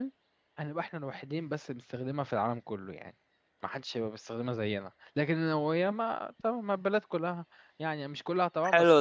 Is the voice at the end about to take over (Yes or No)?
Yes